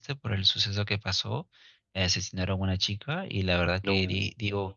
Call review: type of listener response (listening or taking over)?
listening